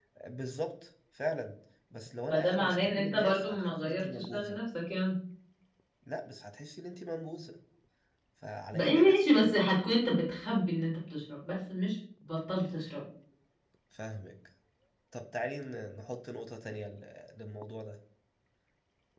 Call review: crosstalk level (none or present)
present